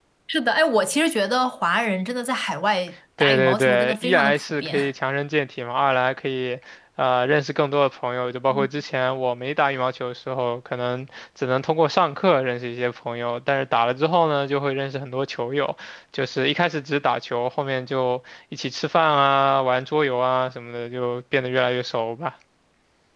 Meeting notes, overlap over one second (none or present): present